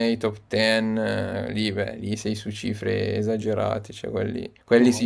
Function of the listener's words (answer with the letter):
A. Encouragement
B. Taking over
A